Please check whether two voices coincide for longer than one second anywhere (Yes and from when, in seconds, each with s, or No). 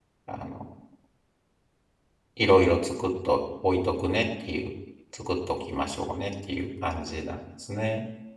No